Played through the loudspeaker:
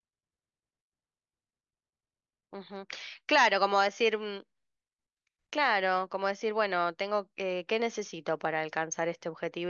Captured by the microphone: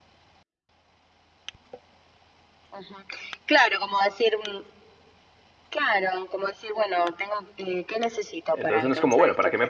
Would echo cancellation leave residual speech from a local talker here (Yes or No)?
Yes